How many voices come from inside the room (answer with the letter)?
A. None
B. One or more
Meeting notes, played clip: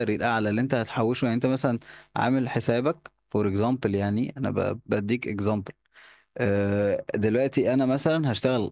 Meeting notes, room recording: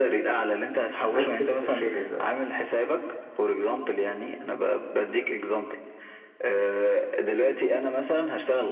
B